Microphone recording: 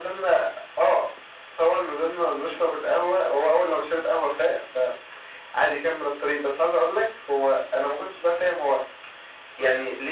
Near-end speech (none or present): none